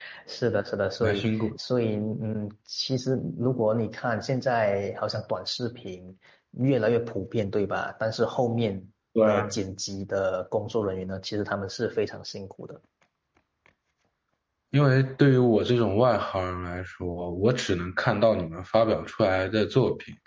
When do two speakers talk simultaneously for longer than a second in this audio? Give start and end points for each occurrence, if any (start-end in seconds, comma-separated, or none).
none